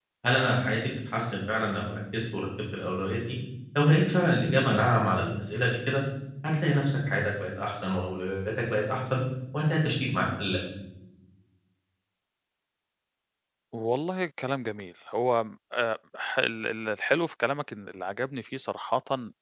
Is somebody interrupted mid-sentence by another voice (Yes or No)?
No